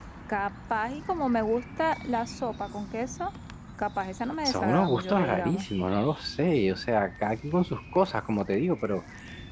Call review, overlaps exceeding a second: present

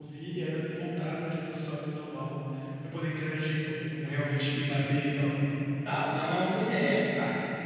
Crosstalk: none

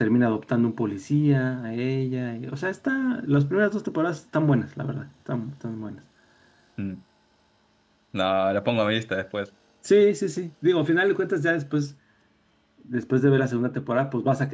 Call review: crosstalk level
none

